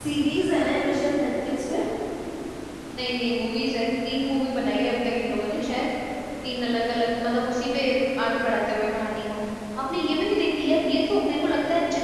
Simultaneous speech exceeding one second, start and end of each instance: none

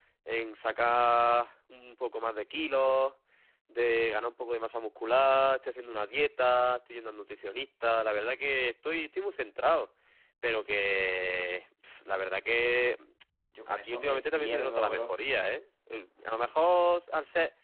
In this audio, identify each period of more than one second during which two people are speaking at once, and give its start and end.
13.7-15.1

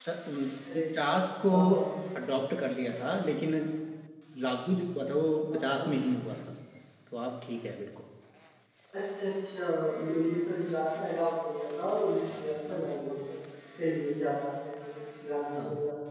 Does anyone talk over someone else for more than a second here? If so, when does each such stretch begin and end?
none

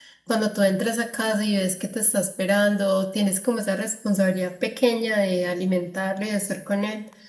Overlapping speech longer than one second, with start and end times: none

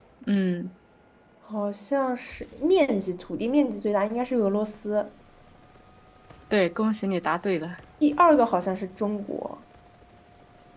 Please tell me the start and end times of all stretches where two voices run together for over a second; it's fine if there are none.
none

